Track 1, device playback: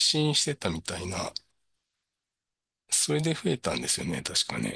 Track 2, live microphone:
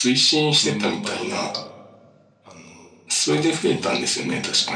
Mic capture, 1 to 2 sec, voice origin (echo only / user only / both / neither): both